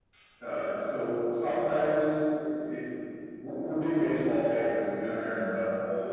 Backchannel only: No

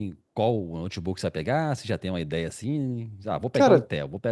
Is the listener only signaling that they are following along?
Yes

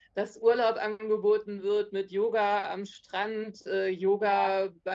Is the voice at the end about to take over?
No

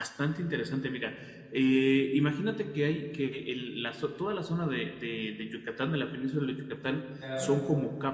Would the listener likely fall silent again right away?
Yes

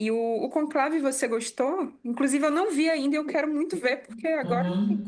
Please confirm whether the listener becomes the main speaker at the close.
Yes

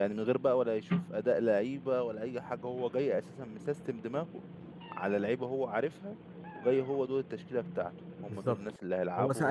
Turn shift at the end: Yes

